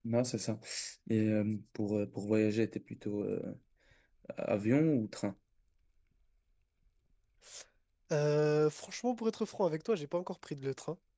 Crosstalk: none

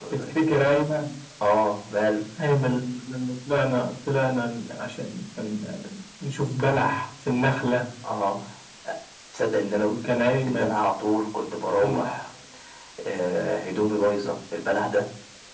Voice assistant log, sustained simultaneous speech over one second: none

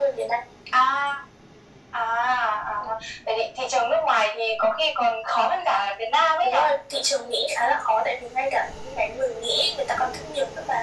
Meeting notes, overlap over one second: none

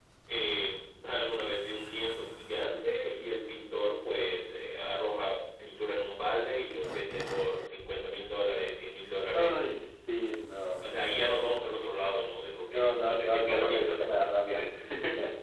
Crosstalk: present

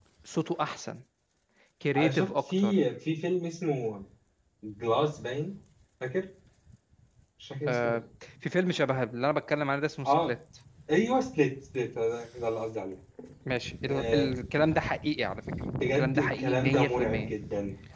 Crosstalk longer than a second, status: present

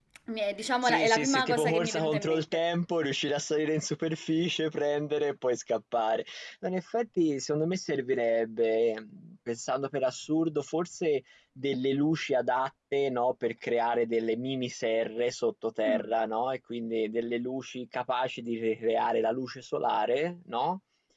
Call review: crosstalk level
present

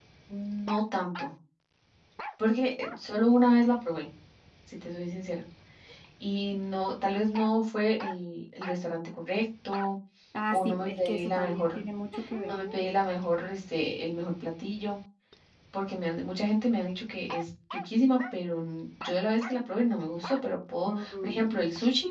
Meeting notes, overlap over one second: present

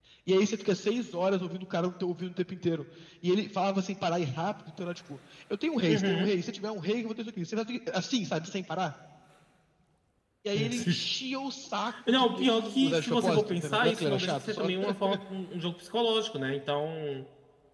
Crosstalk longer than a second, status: present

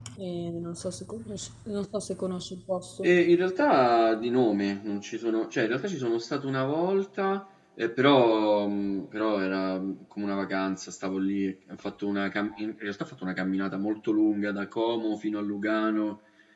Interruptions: none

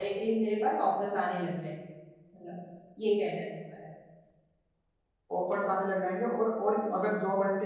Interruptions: none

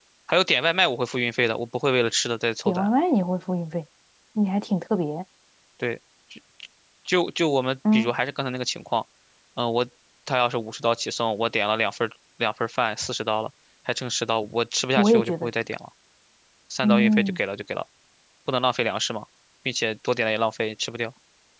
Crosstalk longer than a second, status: none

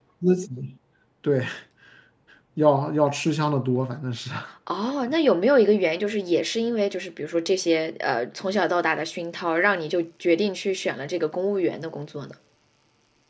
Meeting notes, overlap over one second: none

